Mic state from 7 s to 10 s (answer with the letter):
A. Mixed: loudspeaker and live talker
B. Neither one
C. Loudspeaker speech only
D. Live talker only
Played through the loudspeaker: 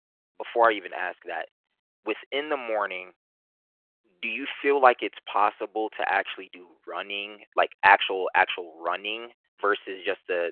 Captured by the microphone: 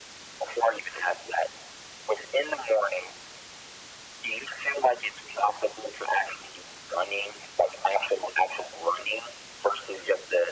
C